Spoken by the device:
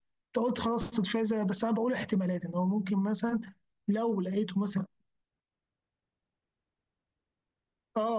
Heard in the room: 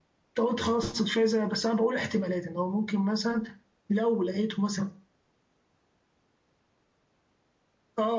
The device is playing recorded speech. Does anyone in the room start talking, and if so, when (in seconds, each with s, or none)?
none